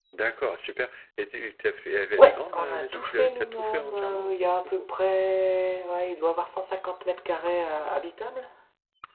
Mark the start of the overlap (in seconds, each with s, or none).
2.2 s